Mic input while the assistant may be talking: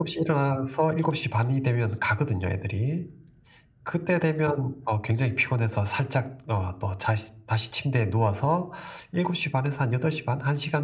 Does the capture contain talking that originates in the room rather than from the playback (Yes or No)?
No